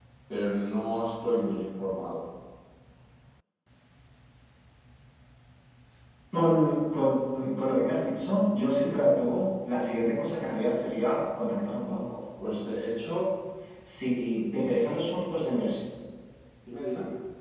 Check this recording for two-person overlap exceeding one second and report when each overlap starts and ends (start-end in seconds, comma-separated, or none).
none